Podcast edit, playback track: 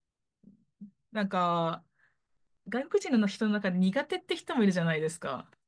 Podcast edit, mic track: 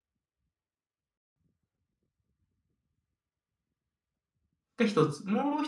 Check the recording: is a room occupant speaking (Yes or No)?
Yes